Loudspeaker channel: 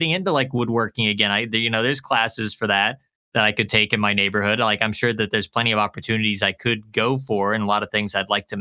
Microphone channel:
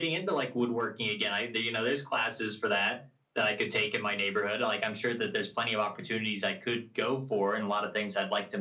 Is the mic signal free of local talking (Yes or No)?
Yes